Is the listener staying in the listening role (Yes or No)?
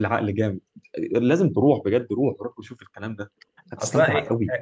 No